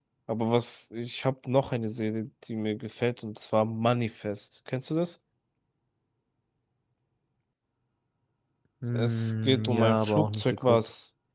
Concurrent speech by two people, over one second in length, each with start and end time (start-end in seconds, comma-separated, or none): 8.9-10.8